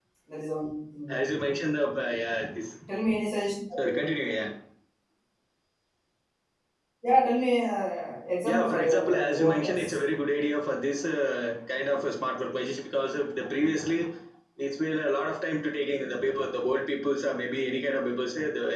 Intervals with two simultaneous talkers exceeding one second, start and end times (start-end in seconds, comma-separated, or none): 8.4-9.9